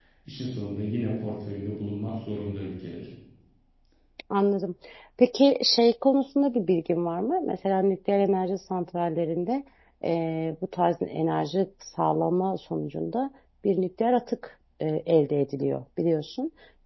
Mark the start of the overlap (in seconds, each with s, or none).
none